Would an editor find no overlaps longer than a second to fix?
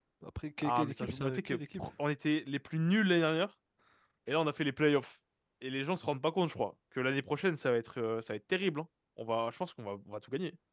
No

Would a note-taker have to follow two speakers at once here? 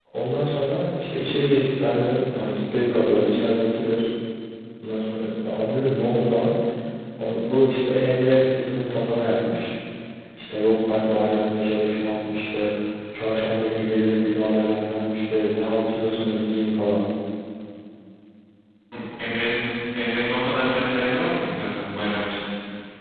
No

